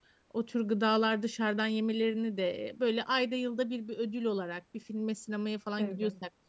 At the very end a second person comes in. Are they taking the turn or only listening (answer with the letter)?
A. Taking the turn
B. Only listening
B